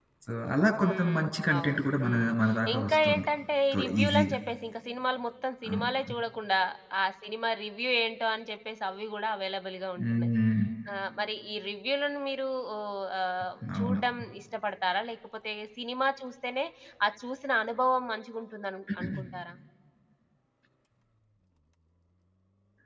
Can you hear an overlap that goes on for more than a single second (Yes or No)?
Yes